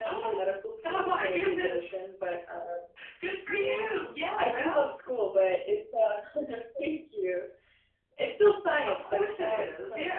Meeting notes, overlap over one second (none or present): present